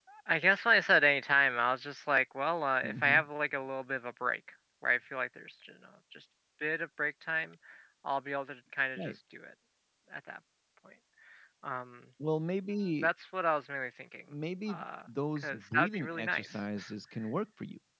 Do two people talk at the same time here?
Yes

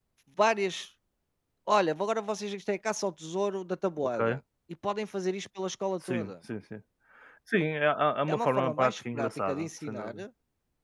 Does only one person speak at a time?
No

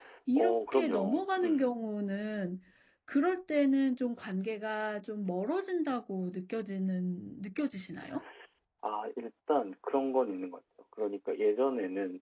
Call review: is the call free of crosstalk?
No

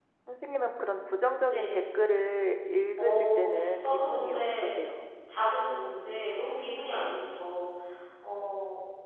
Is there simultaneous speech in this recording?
Yes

